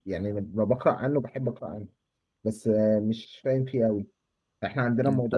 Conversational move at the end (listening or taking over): listening